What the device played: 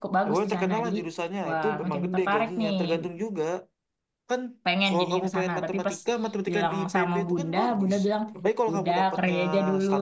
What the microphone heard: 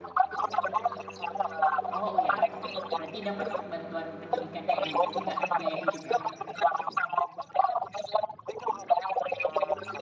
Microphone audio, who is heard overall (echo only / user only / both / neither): both